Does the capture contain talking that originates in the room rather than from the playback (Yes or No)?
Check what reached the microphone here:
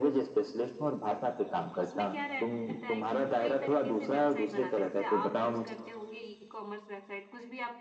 Yes